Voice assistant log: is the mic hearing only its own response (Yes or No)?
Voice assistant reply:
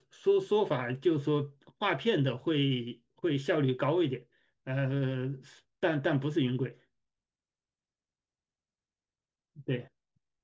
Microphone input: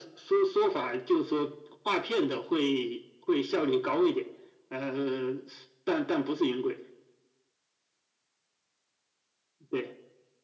Yes